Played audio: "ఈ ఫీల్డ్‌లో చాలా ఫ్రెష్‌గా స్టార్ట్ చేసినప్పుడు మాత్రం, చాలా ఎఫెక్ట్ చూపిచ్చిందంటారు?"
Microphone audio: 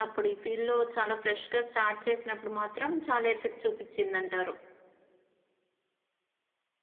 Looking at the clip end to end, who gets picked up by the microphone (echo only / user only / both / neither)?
echo only